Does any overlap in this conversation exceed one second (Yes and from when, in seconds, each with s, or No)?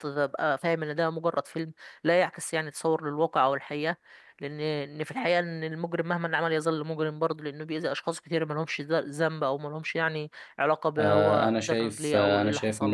Yes, from 11.0 s